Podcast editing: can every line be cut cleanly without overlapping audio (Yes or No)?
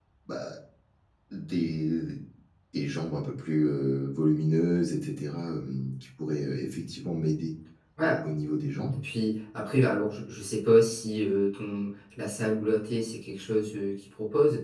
Yes